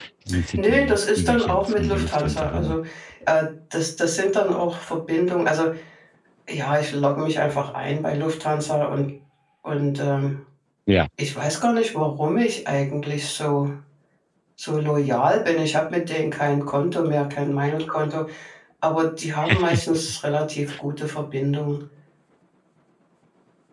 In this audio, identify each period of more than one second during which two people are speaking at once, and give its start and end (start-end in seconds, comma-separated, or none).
0.6-2.8